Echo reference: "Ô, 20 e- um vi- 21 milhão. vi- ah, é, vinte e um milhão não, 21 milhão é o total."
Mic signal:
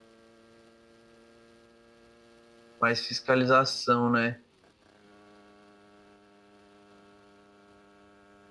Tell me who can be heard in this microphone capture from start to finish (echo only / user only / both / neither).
user only